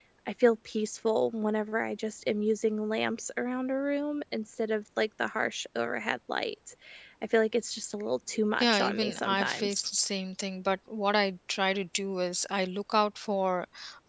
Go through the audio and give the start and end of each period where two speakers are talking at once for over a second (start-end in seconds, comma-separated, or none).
8.6-9.9